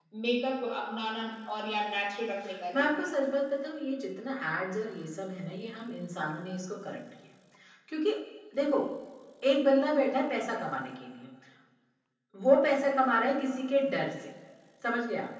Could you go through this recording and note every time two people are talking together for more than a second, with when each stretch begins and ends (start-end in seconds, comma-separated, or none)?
none